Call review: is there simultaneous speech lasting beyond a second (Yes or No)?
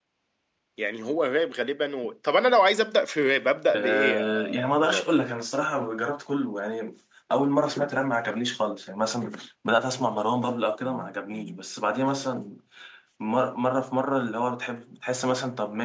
Yes